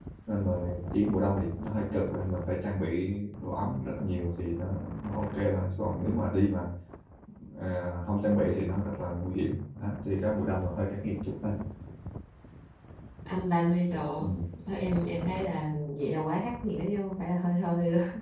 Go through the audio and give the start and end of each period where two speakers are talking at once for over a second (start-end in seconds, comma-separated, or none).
none